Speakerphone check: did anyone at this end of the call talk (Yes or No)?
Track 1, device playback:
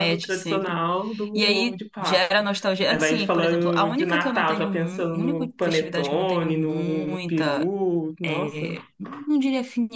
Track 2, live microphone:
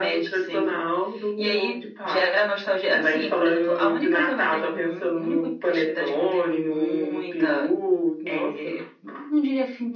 No